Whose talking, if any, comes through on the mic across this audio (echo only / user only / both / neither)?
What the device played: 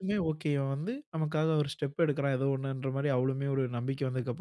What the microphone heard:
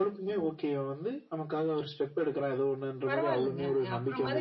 both